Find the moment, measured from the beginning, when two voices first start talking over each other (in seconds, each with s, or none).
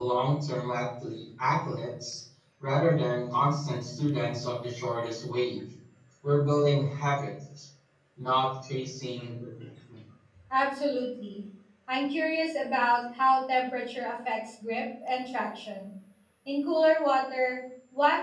none